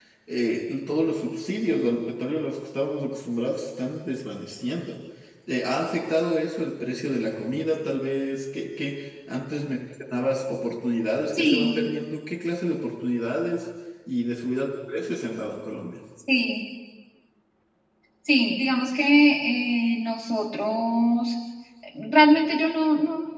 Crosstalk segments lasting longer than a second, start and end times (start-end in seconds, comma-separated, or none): none